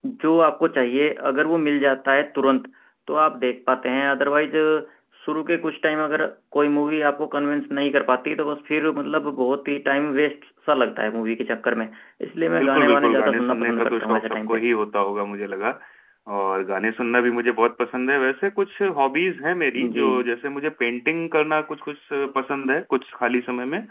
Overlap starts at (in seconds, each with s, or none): 12.6 s